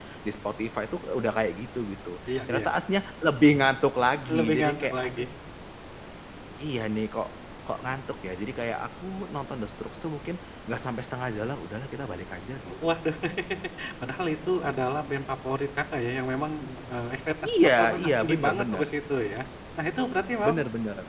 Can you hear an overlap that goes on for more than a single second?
Yes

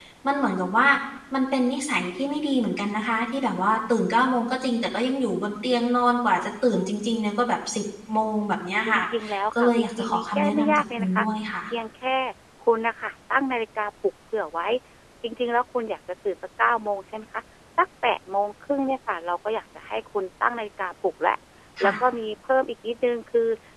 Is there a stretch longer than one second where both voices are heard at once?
Yes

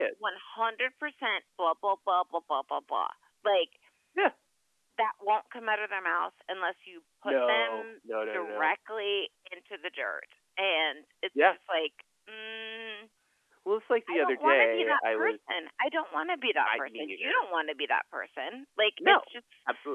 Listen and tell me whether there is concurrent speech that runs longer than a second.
Yes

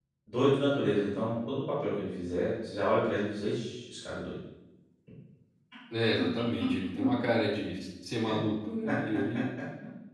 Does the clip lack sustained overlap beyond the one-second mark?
Yes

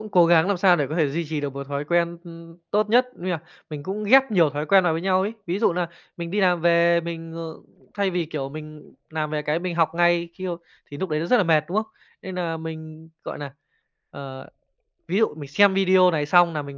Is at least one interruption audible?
No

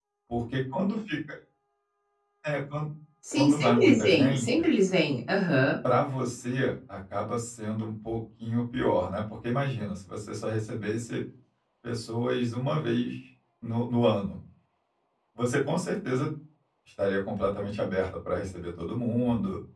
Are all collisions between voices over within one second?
No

